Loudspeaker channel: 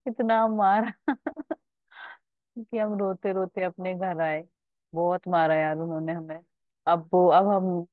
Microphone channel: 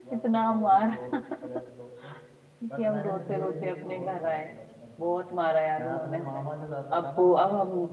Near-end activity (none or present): present